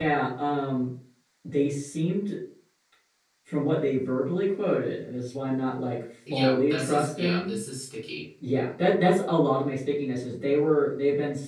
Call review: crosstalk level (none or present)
present